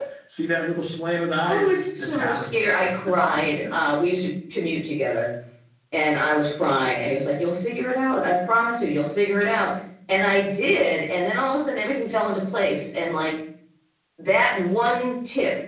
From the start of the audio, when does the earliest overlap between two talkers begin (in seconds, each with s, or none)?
1.4 s